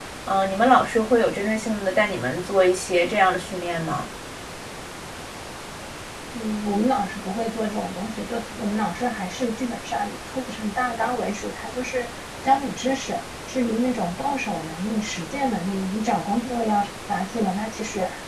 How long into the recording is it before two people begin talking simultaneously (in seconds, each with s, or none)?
none